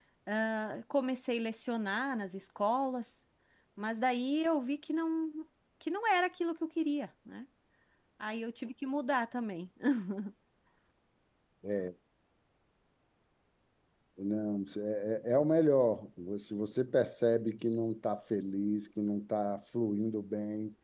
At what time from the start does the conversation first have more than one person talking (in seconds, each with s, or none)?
none